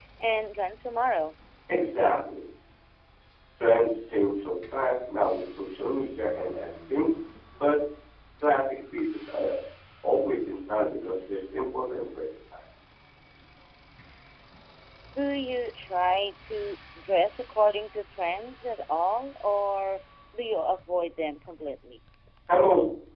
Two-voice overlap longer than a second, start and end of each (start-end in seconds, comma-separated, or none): none